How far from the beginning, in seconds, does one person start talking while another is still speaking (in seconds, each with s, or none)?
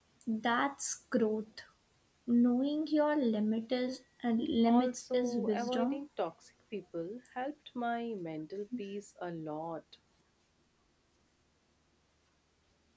4.6 s